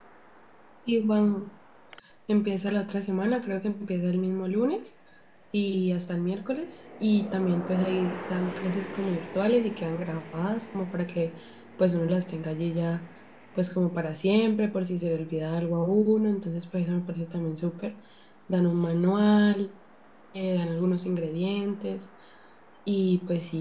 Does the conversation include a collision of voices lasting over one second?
No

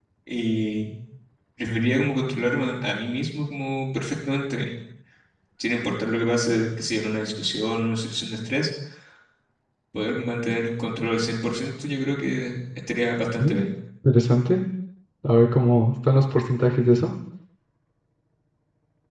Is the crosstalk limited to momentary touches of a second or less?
Yes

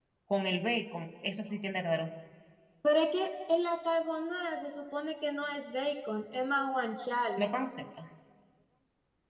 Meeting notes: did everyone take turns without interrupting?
Yes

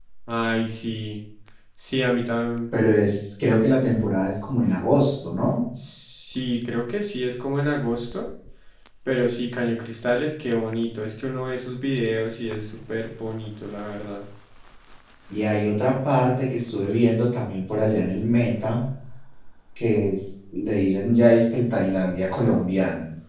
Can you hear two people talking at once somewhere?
No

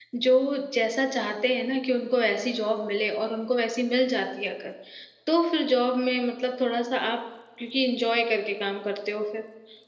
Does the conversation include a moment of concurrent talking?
No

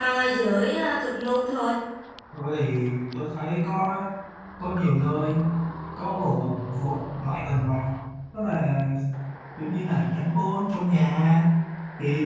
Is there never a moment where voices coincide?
Yes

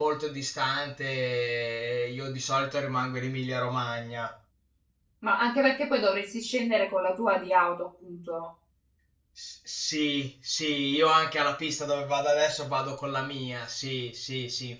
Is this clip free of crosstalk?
Yes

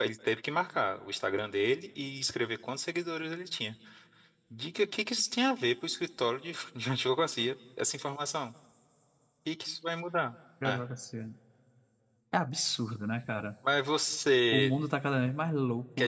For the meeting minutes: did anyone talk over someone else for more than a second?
No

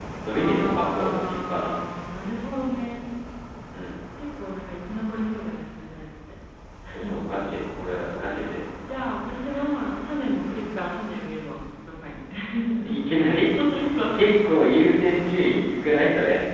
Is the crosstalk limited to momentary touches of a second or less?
No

